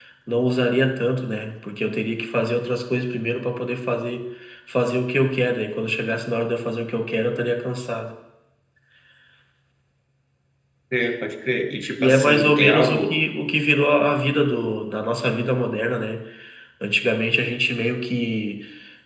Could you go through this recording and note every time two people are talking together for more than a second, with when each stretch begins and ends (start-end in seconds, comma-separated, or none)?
12.0-13.2